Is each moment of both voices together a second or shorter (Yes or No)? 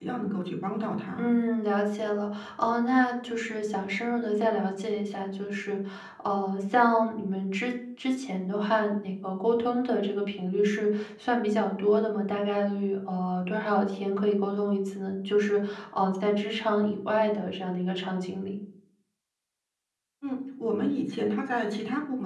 Yes